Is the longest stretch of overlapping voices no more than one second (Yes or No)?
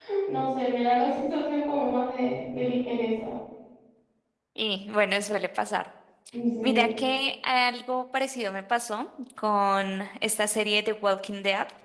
Yes